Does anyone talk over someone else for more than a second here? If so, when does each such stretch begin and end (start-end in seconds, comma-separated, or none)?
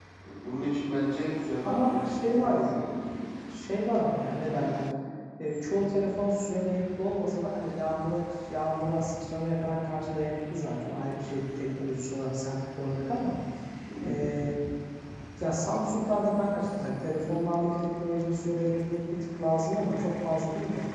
1.6-3.0